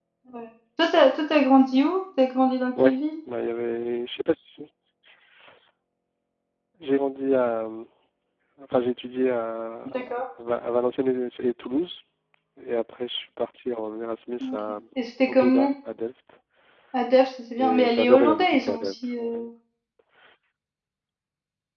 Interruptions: present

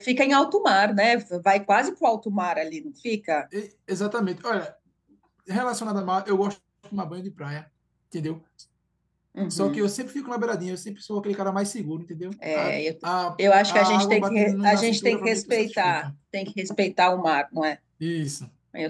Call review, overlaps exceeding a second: present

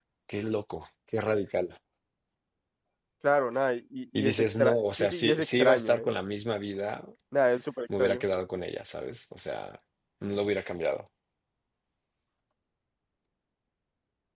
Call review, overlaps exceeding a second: present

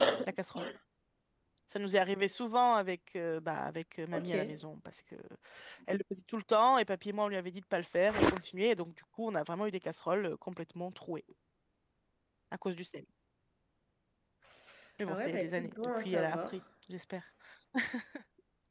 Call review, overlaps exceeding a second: present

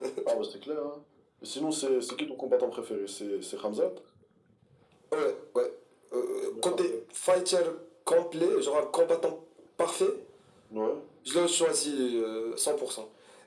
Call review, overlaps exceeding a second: none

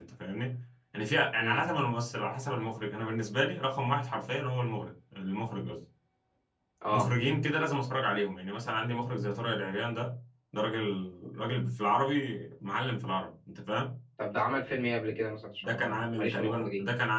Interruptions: present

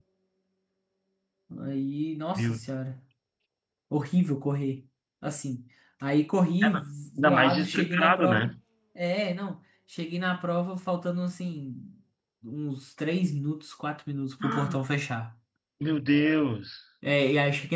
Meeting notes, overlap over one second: present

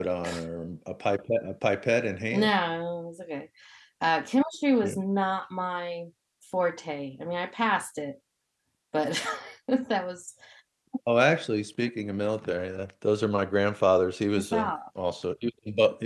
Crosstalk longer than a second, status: none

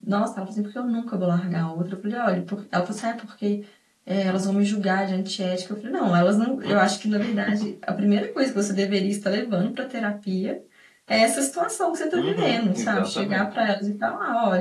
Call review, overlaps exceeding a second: present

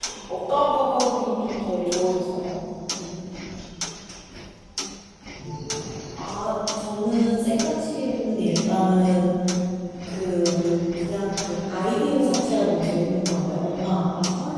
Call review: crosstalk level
none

